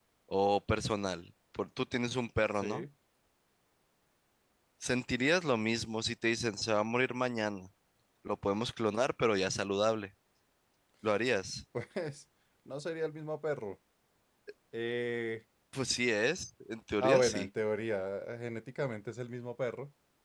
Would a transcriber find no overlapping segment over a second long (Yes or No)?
Yes